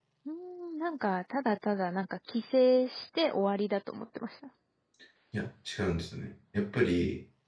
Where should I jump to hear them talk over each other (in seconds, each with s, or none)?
none